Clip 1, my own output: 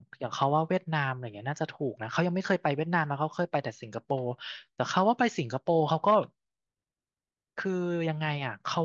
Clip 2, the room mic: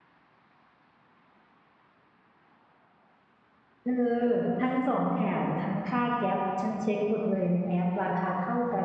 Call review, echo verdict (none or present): none